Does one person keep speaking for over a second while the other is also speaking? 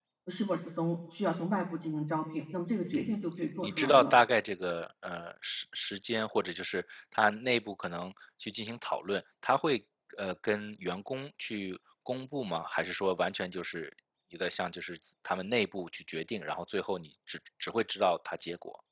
No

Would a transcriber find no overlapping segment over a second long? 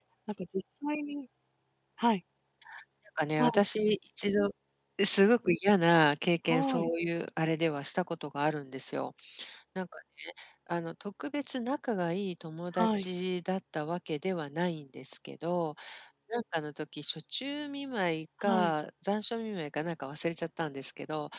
Yes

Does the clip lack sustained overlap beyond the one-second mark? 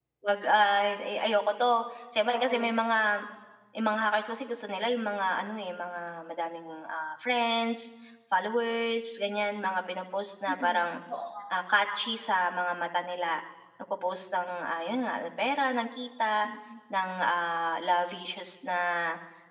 Yes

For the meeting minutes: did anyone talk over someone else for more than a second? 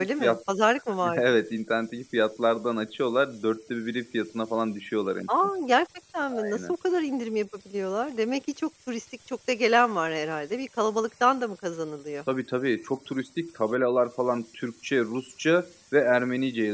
No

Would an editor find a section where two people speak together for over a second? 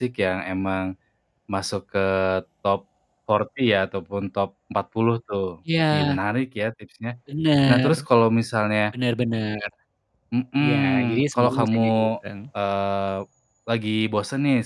Yes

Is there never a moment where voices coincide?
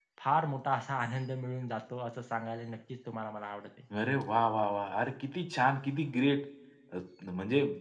Yes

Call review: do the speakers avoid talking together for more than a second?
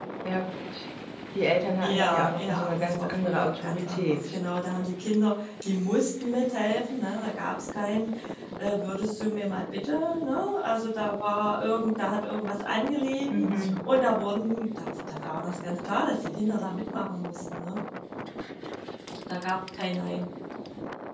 No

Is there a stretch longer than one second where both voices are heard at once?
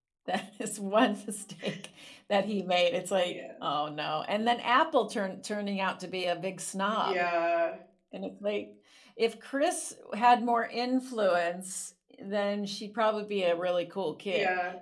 No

